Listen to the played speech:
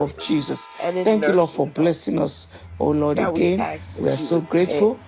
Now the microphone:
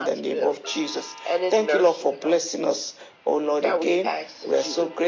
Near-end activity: none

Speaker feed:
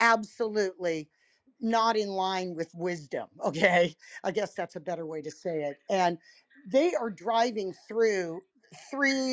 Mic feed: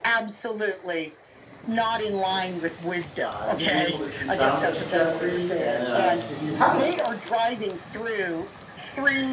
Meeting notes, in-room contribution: present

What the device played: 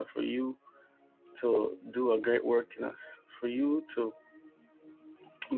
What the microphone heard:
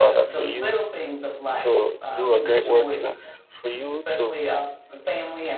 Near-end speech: present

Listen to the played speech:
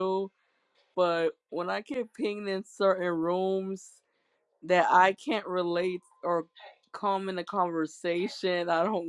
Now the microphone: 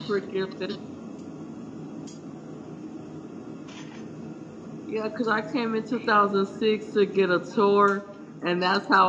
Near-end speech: present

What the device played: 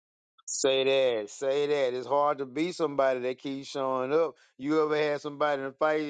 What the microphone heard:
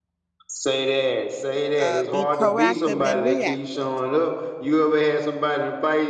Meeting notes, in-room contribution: present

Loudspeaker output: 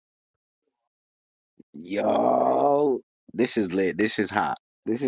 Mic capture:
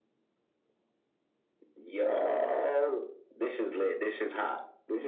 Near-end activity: none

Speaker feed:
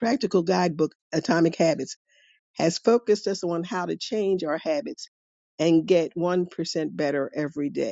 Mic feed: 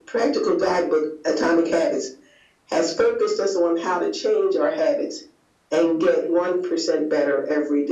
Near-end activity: none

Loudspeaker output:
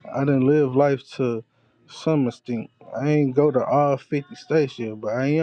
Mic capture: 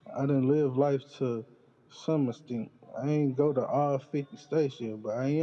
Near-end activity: none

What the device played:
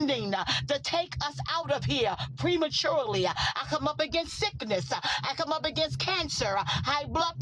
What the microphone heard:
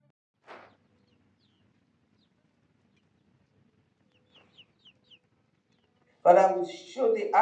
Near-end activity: present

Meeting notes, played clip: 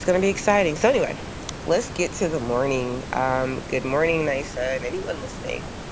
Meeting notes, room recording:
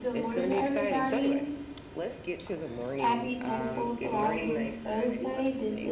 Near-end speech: present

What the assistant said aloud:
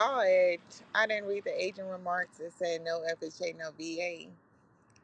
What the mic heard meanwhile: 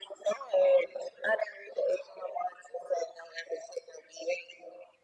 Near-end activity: none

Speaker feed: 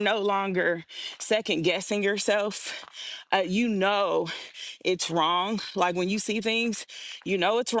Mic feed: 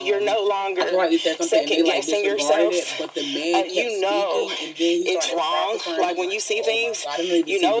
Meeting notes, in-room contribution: present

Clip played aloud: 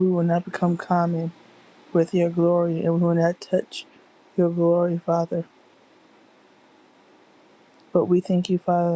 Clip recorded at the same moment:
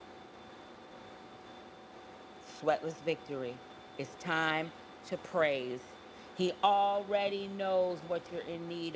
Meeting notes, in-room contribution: present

